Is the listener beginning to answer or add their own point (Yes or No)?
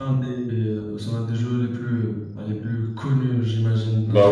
Yes